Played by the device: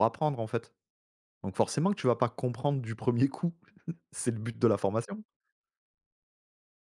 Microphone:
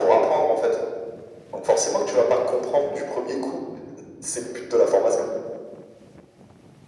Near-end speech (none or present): none